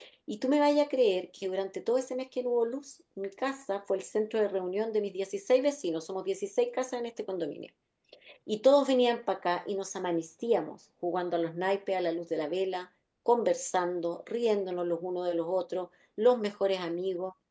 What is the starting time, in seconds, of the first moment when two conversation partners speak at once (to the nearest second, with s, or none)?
none